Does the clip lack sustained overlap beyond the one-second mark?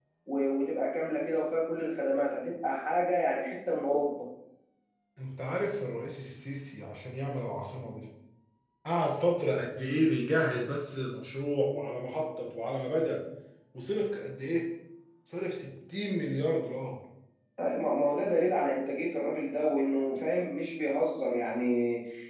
Yes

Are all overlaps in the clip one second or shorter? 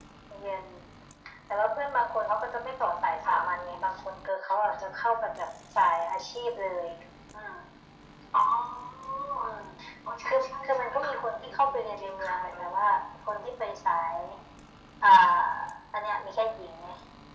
No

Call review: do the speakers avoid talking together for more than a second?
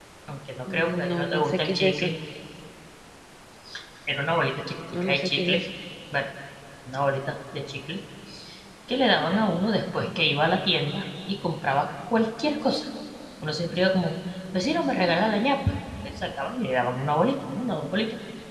No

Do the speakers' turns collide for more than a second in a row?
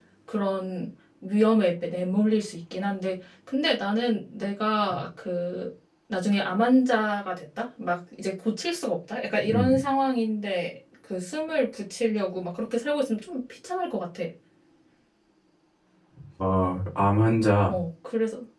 No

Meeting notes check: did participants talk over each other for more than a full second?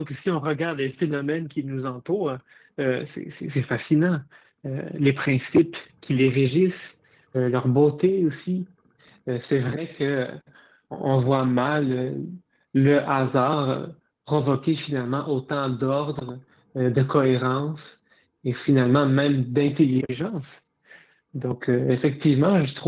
No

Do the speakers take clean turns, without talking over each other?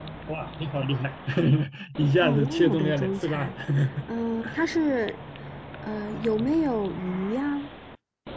No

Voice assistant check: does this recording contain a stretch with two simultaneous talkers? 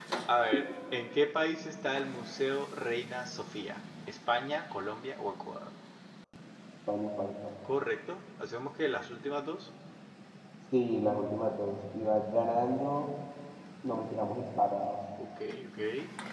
No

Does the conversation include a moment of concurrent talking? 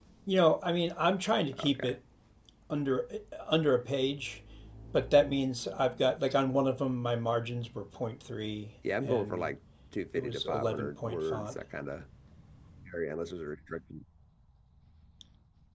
Yes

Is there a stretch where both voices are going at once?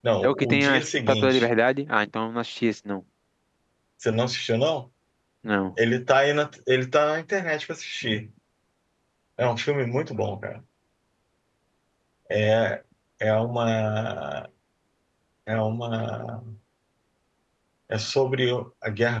Yes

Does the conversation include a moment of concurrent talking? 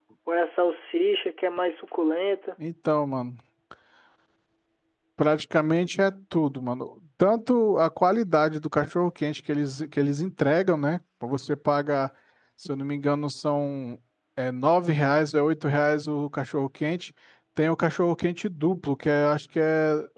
No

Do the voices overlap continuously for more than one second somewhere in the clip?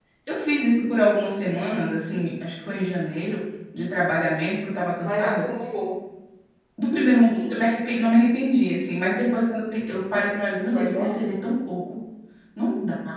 No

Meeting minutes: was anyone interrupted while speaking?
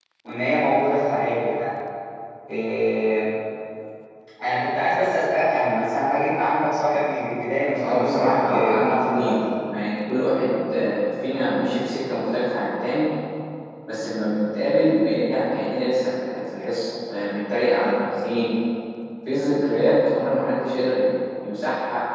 Yes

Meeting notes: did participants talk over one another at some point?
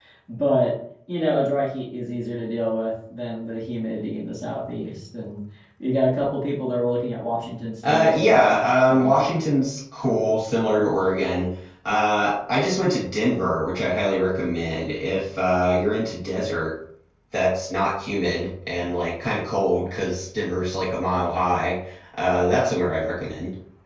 Yes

